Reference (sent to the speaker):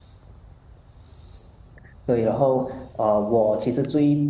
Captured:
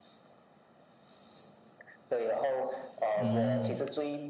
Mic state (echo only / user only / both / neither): both